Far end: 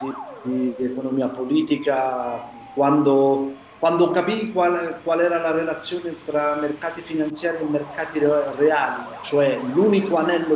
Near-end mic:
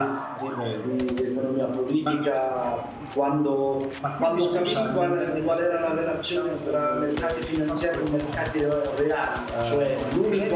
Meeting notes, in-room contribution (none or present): present